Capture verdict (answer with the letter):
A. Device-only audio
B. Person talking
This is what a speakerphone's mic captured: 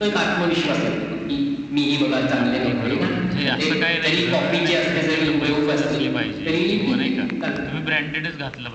B